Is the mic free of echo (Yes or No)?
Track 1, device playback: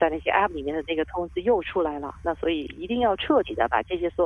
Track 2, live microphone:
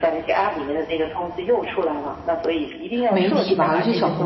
No